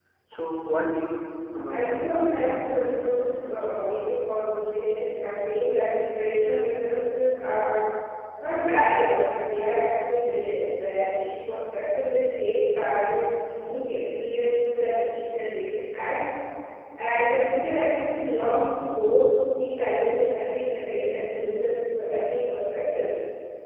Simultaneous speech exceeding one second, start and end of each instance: 1.7-3.9

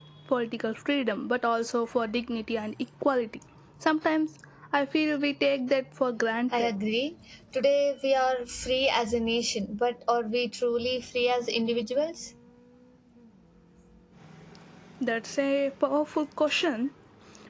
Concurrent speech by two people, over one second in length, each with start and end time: none

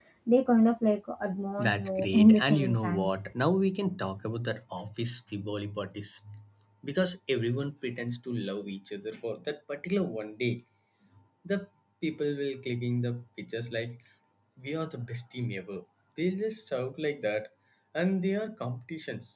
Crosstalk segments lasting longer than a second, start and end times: 1.6-3.1

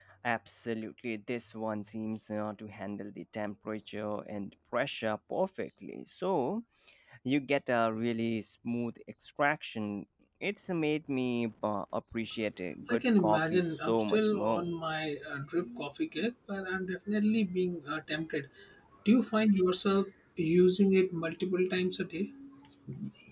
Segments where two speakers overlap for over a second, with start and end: 12.9-14.6

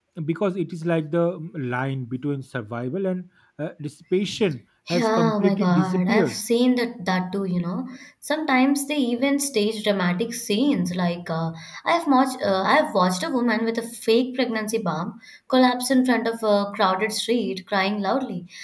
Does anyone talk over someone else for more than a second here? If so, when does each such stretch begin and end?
4.9-6.4

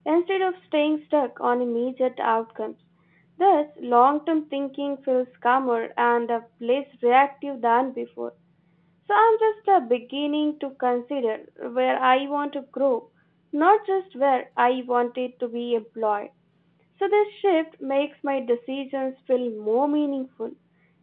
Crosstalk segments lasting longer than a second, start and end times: none

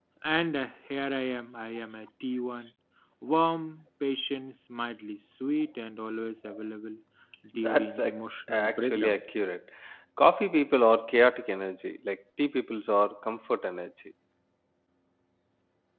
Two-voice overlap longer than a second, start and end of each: 7.5-9.2

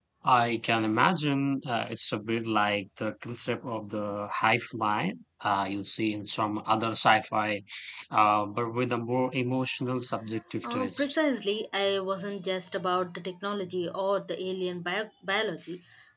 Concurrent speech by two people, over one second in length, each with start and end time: none

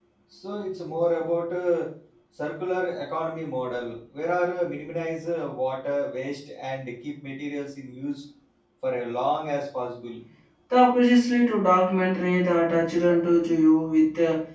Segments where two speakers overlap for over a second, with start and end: none

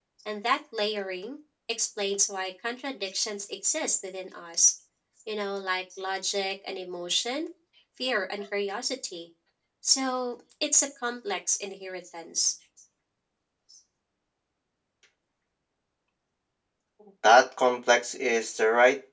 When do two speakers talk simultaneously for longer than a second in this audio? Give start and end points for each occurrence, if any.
none

